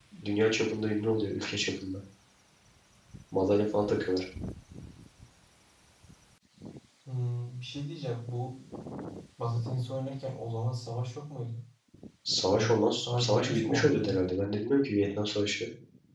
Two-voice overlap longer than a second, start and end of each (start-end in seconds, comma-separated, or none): 12.5-14.2